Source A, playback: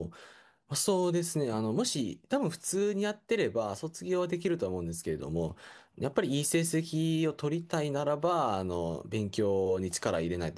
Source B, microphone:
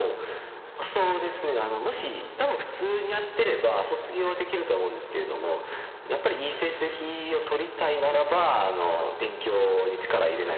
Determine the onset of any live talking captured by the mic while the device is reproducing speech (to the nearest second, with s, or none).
10 s